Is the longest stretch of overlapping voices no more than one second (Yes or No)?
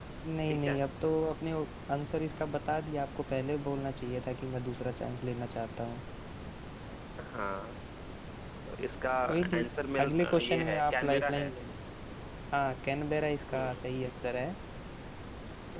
No